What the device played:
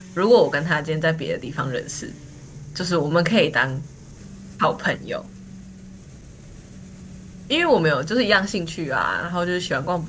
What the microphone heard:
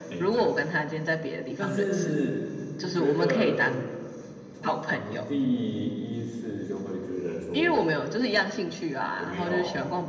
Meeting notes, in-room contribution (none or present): present